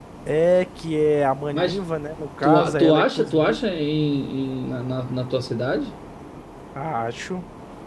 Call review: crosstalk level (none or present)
present